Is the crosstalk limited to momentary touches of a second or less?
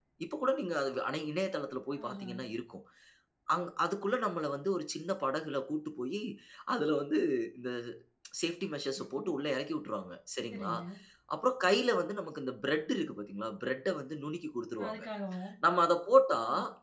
Yes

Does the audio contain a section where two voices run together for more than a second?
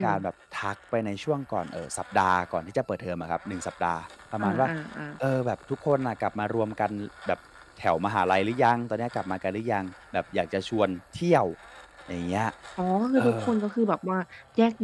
No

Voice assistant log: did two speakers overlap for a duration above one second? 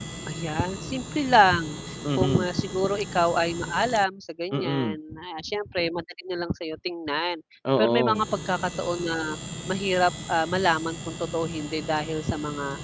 No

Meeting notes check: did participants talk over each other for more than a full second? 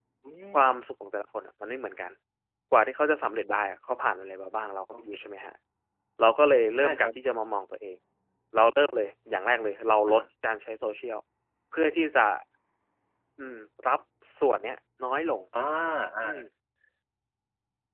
No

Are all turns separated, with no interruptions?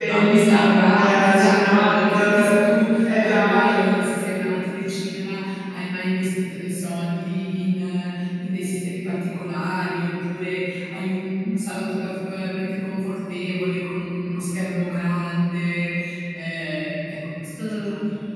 No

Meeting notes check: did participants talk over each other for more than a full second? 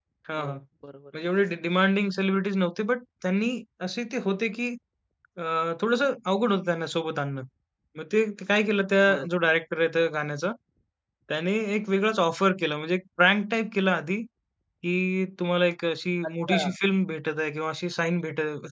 No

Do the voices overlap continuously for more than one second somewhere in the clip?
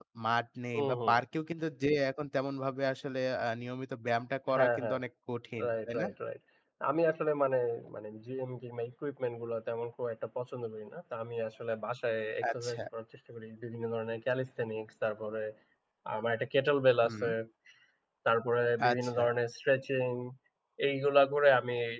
No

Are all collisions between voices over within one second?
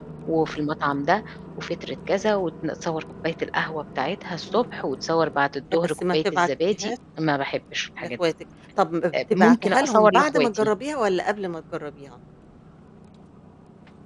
No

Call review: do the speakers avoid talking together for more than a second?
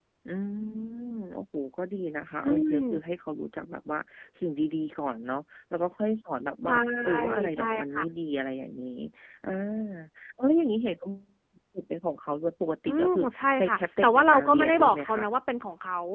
No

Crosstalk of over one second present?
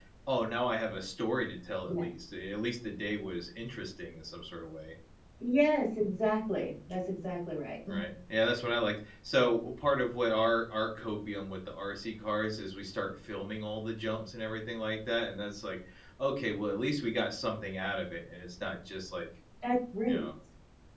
No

